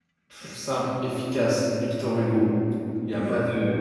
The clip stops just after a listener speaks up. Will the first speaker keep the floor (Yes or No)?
No